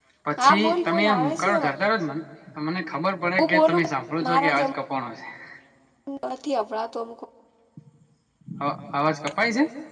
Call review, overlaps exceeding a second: present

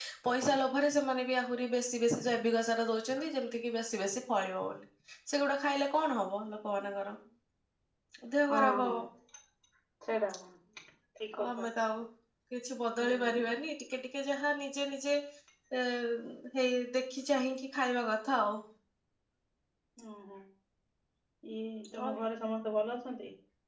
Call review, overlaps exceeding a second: none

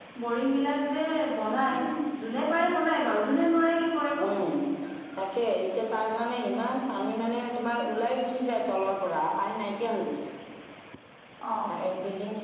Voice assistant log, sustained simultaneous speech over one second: none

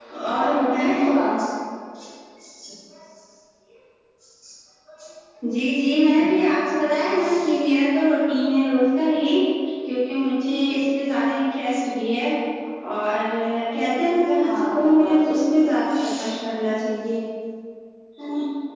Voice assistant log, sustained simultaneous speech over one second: present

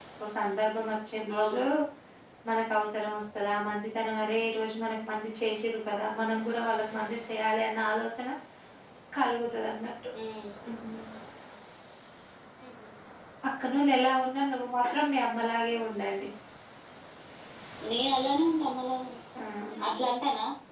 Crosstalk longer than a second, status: none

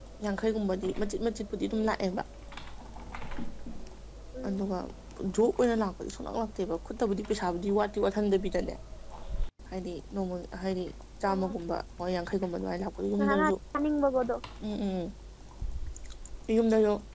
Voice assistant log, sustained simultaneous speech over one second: none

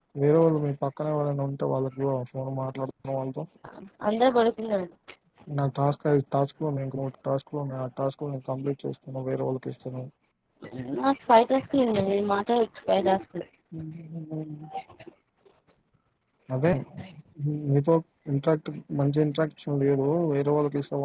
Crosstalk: none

